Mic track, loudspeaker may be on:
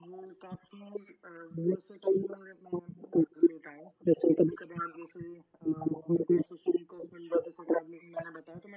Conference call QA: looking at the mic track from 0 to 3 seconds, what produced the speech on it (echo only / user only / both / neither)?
echo only